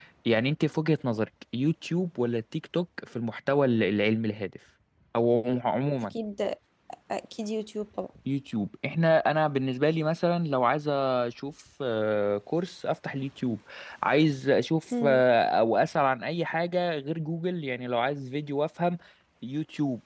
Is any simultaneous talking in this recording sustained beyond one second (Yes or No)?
No